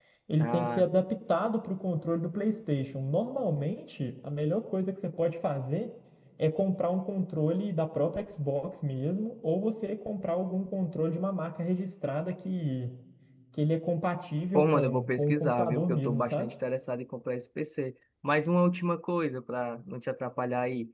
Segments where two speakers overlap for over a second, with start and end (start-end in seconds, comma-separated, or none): 14.5-16.5